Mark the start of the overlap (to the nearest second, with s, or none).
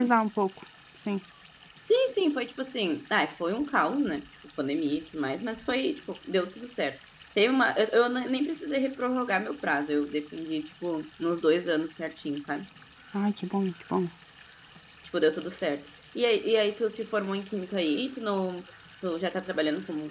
none